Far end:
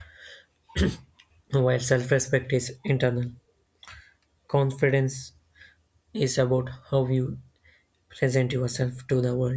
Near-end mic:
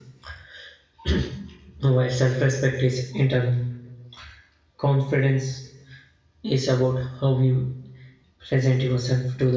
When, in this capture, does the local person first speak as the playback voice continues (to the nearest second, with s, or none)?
none